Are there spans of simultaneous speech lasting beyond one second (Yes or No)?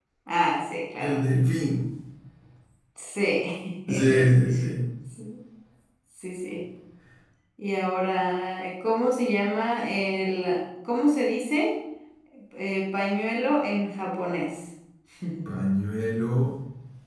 No